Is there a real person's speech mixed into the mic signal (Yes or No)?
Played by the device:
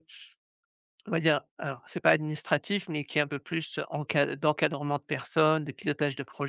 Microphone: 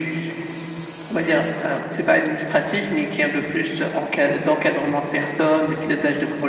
No